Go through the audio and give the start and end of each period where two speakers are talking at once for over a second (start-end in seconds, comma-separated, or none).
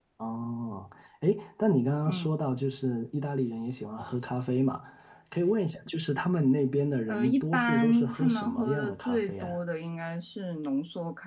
7.1-9.6